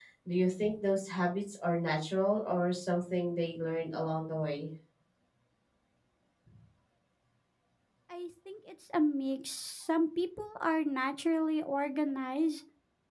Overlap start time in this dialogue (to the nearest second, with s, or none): none